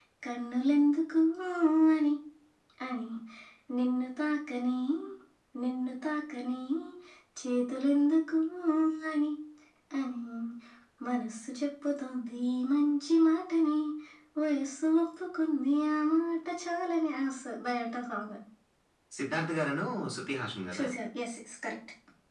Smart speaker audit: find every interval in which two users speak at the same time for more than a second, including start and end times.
none

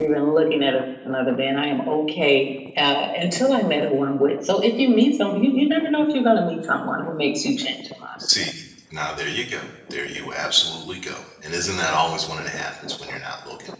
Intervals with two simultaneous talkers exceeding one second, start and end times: none

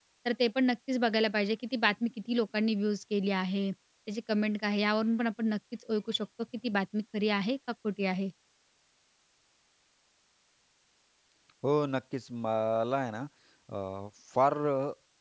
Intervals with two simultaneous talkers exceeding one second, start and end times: none

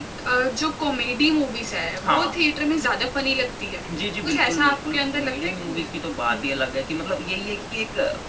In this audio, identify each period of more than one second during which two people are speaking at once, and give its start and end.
4.2-5.9

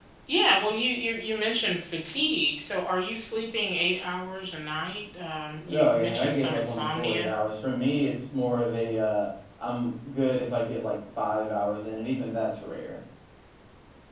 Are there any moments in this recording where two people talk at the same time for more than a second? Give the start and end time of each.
5.7-7.3

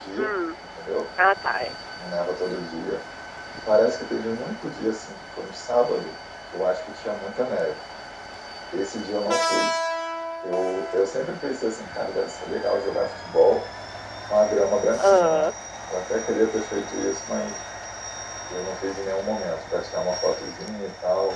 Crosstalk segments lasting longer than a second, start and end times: none

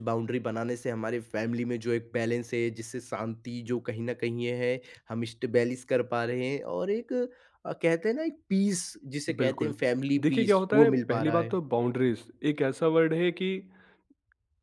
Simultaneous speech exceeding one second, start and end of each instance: 10.2-11.6

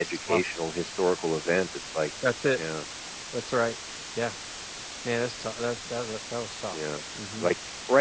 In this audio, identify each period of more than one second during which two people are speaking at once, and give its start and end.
none

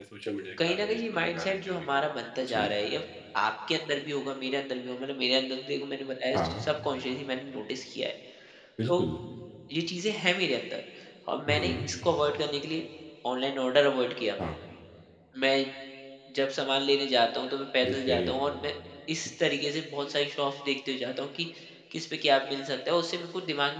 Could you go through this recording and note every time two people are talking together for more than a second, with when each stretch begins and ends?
0.7-1.9

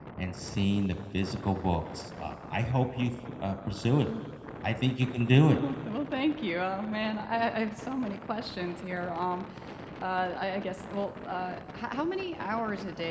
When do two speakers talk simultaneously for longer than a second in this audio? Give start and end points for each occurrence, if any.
none

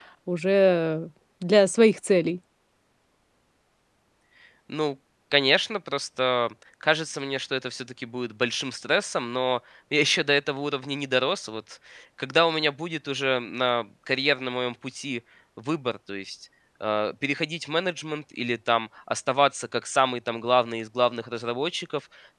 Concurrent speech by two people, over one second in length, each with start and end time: none

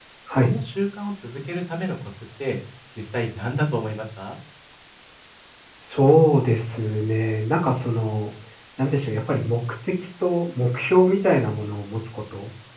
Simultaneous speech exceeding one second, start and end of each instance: none

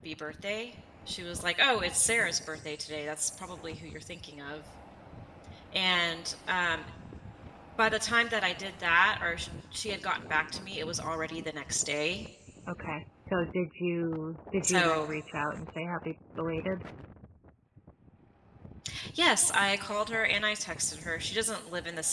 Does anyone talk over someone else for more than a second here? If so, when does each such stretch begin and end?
none

